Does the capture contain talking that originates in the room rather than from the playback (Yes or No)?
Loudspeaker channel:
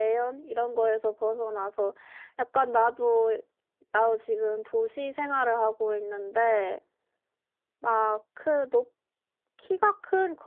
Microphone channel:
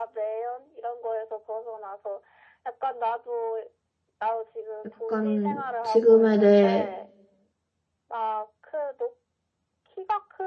Yes